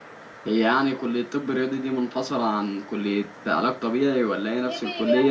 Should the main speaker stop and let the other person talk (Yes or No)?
Yes